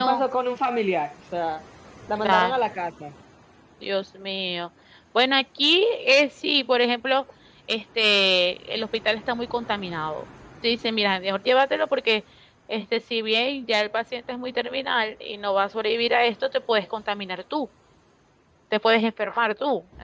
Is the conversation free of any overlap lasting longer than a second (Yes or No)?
Yes